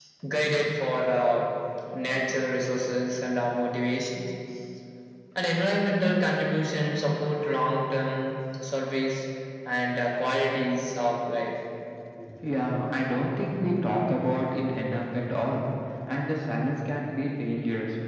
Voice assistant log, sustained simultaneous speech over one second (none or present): none